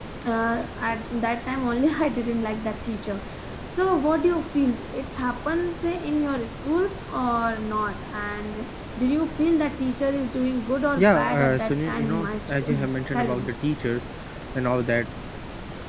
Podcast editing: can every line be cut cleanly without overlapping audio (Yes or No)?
No